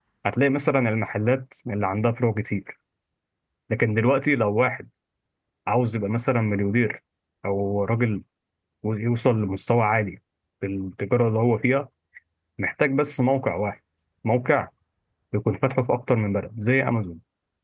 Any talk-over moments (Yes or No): No